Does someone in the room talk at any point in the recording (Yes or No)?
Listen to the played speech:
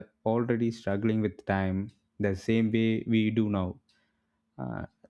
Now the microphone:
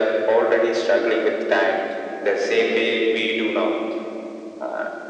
No